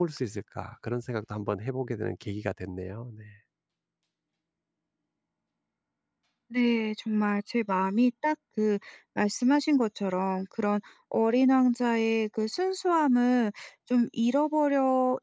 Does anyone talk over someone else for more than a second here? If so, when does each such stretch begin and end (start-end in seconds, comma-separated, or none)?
none